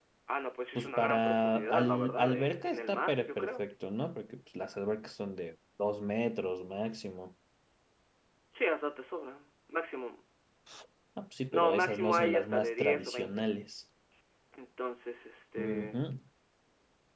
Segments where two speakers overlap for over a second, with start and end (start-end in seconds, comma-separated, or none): 0.8-3.6, 11.5-13.5